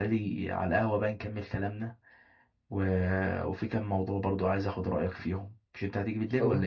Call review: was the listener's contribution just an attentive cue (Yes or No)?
No